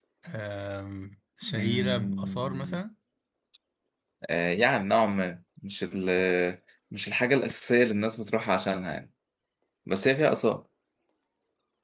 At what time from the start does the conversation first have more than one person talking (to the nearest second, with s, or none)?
1 s